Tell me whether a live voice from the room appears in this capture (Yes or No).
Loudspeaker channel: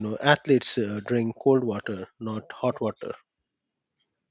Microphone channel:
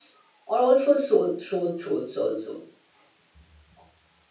Yes